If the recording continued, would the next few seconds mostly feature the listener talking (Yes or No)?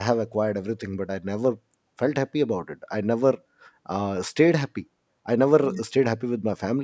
No